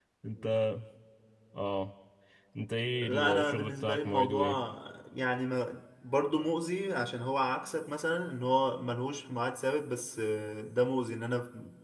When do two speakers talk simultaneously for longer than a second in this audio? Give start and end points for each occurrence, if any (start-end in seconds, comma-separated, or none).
3.0-4.4